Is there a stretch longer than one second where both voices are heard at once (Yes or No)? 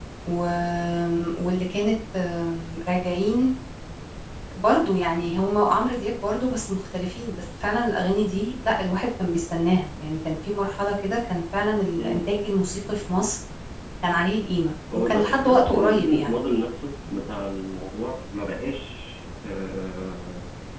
Yes